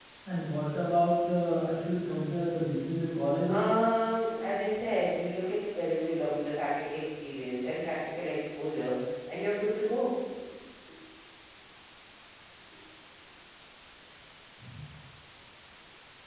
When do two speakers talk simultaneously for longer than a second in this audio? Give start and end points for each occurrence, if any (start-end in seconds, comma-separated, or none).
none